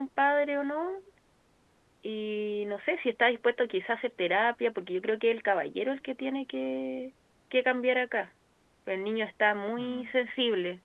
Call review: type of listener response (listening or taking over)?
listening